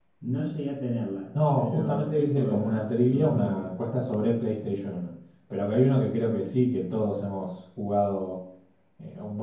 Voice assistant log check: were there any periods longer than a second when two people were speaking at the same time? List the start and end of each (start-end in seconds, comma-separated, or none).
1.6-3.7